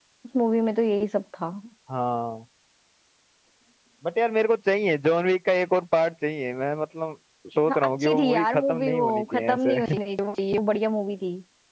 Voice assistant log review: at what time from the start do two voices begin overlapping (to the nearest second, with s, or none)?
8 s